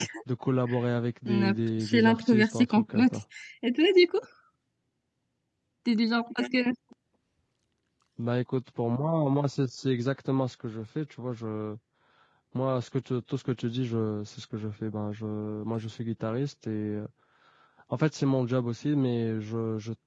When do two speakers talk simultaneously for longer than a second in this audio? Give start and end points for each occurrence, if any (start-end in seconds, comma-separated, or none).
1.3-3.1